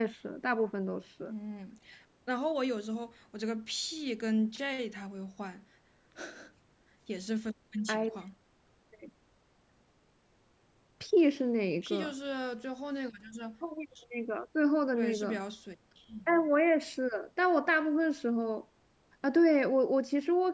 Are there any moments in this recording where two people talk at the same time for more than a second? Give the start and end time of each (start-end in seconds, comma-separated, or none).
none